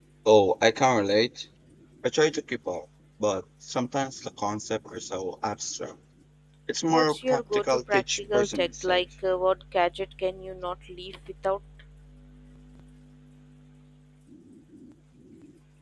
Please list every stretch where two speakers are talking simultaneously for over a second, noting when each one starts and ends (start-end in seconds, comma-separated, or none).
6.9-9.0